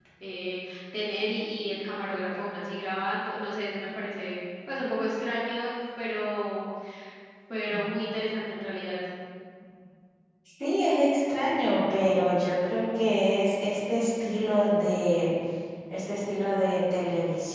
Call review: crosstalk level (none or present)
none